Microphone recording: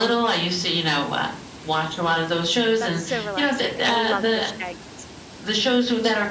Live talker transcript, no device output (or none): That's so relaxing, I love fish tanks.